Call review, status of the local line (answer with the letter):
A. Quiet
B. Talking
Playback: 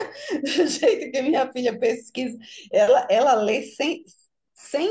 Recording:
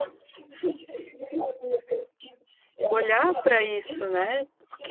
B